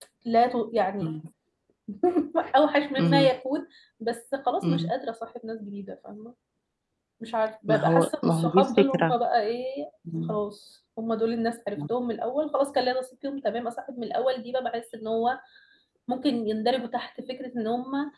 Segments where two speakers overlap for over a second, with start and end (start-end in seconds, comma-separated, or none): 7.7-9.2